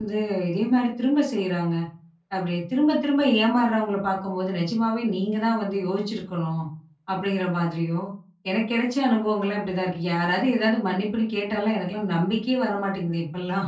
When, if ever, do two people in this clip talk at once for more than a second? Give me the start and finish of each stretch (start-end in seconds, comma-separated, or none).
none